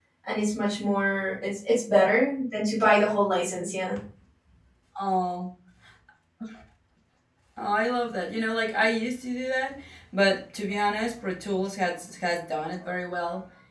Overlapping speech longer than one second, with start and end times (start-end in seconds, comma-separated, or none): none